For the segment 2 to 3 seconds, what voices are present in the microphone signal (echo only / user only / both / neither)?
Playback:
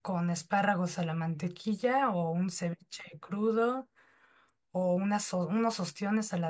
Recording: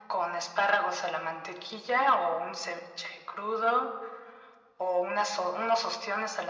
echo only